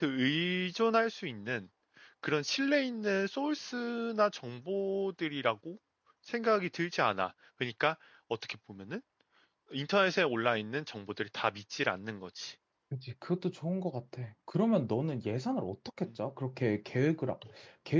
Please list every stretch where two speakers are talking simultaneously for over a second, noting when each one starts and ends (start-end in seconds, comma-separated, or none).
none